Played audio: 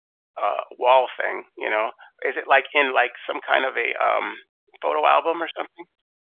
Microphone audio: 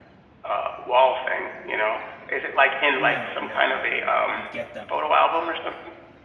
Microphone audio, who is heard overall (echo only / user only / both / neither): both